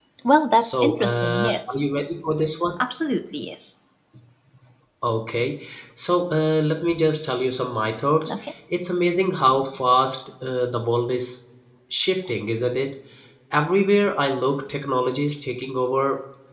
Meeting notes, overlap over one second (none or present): present